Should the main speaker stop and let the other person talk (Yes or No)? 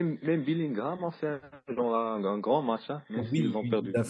Yes